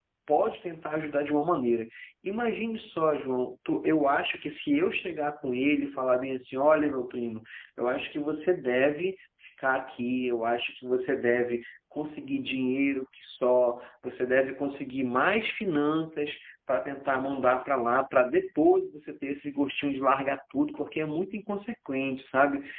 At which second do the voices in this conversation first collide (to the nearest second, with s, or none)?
none